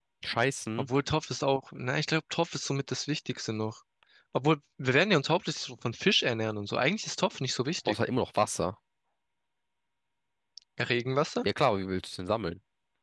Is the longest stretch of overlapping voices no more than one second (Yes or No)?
Yes